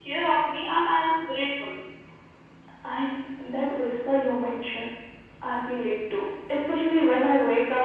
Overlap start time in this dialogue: none

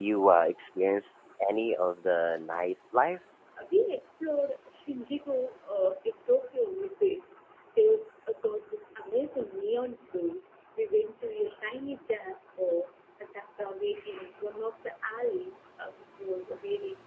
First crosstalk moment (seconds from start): none

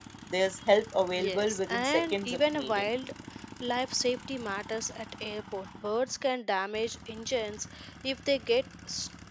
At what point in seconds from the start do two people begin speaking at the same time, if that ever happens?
1.2 s

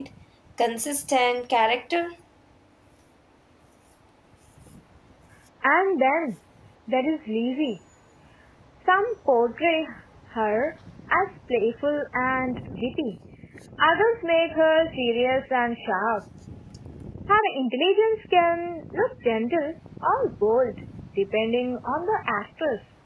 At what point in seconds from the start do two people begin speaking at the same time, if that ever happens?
none

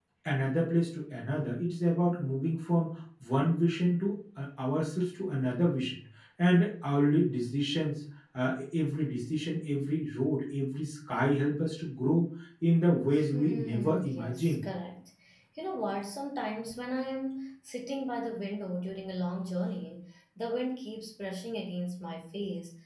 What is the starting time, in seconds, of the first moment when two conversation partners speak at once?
13.2 s

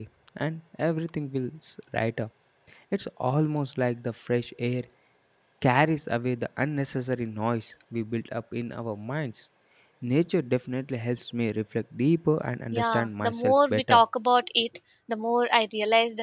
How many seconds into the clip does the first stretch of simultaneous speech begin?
12.7 s

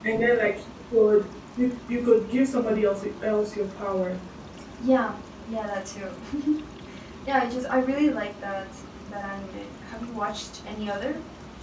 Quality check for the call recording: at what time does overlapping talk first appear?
none

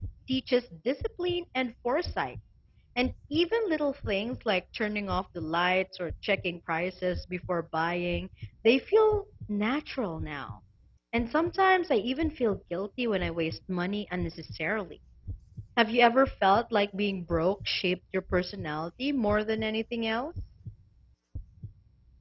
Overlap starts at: none

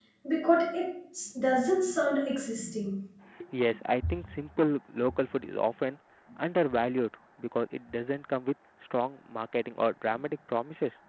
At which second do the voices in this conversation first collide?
none

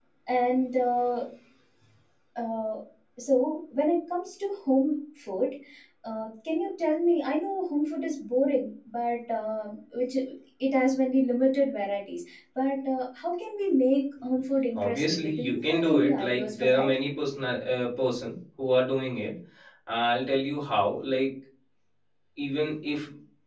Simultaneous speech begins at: 14.8 s

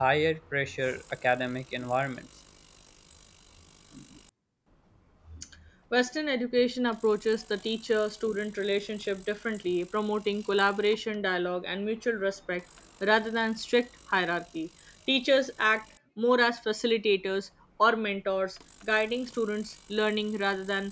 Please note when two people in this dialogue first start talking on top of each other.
none

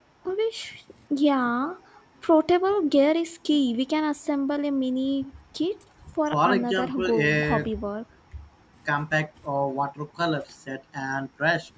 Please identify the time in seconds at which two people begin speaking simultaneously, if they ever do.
6.3 s

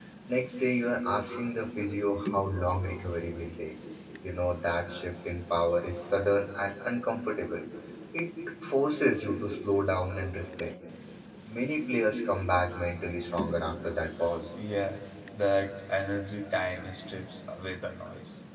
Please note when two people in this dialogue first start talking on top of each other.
none

